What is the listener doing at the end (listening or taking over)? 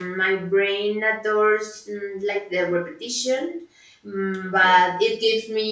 listening